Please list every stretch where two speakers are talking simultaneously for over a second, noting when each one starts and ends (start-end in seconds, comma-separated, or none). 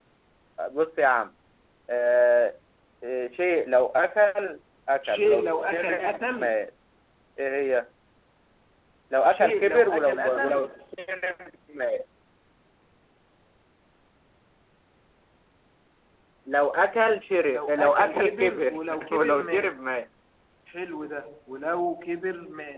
5.0-6.6, 9.3-10.7, 17.5-19.8